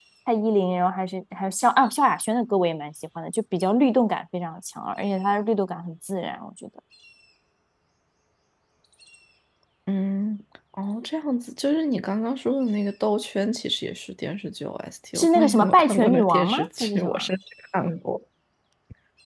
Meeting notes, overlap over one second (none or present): present